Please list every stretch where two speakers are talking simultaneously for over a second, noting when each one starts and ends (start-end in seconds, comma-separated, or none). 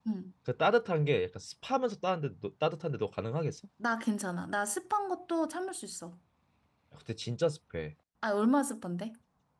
none